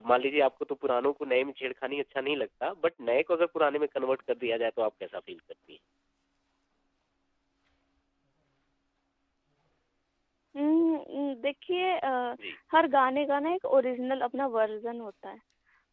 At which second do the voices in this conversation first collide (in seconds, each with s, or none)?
none